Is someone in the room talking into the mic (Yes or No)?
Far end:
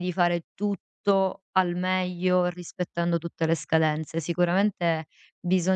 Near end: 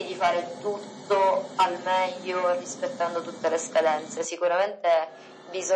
No